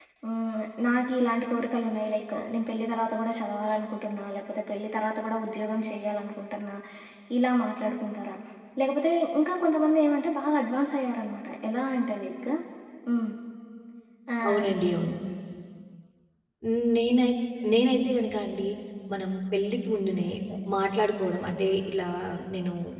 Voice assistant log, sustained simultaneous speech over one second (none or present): none